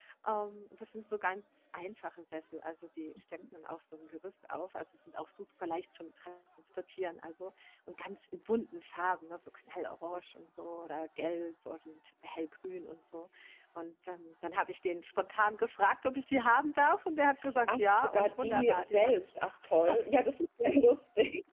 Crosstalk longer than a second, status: present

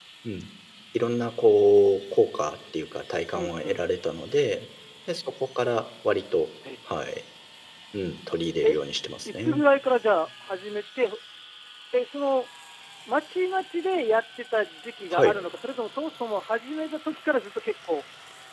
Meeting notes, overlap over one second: none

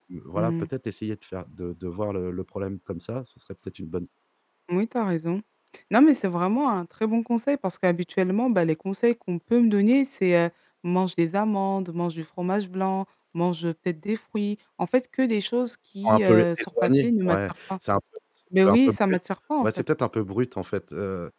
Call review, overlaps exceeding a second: present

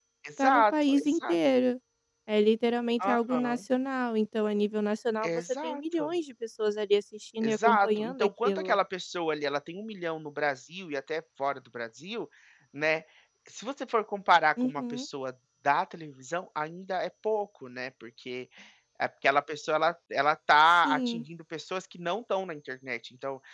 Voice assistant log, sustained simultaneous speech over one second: present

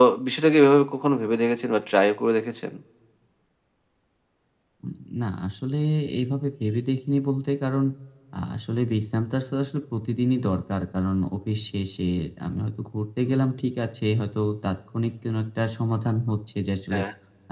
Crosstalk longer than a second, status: none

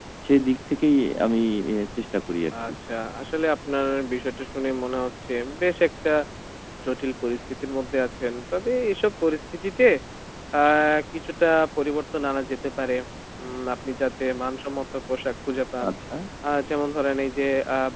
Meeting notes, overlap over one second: none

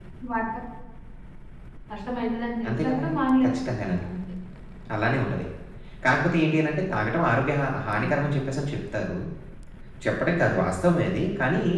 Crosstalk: present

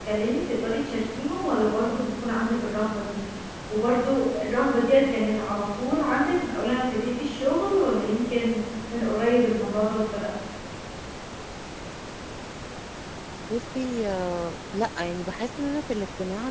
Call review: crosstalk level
none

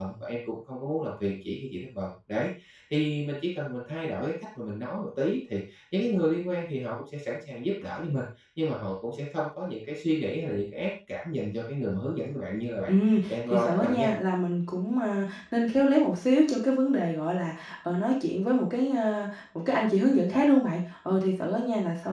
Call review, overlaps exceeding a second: present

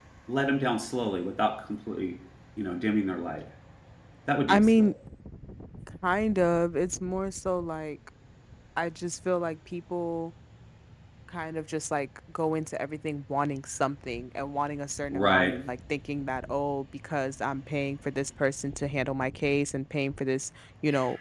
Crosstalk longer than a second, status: none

